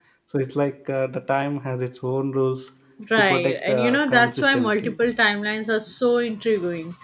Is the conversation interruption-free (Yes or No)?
No